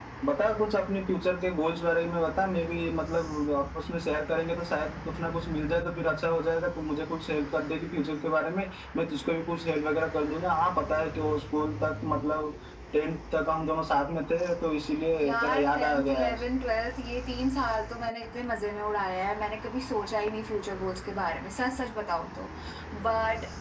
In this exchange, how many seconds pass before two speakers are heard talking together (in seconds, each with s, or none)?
15.1 s